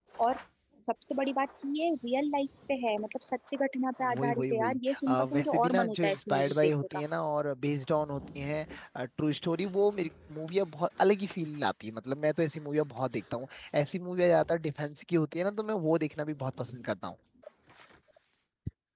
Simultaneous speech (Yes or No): Yes